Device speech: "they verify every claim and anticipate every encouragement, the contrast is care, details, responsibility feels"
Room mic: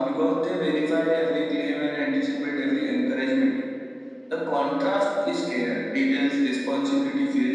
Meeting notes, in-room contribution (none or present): none